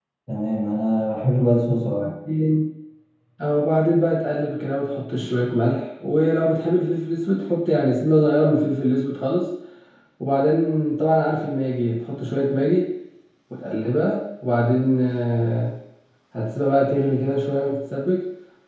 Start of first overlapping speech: none

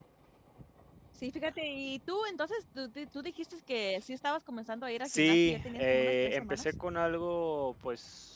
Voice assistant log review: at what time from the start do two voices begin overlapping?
5.0 s

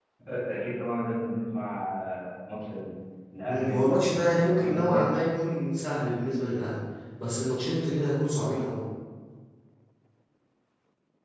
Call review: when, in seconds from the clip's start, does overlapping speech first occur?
3.4 s

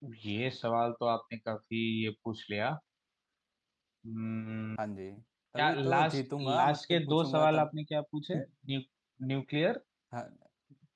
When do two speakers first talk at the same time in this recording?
5.6 s

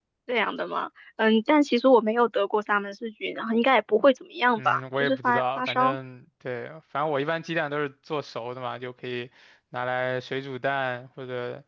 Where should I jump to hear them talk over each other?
4.6 s

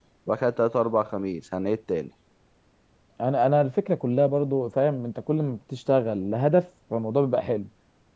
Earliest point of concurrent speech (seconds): none

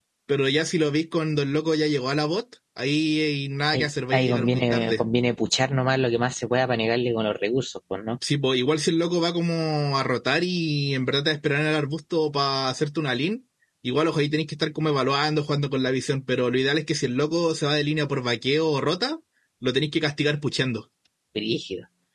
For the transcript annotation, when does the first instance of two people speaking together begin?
3.7 s

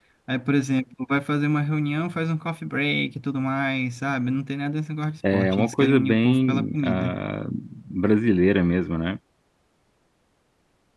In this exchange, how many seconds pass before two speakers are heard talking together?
5.2 s

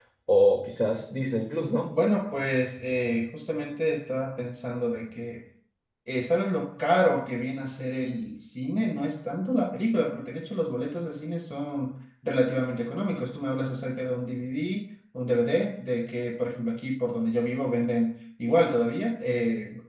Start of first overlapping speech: none

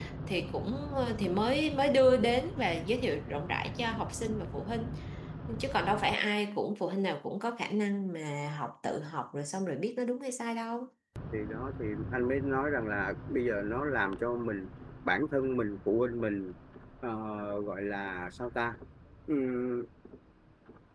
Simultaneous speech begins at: none

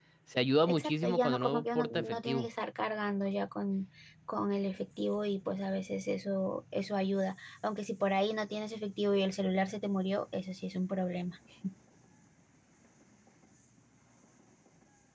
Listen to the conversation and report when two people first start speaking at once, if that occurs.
0.7 s

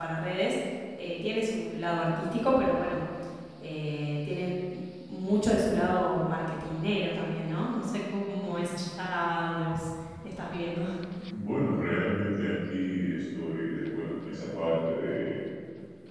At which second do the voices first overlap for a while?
none

